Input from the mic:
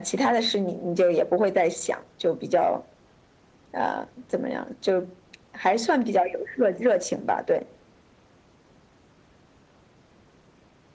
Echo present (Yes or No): Yes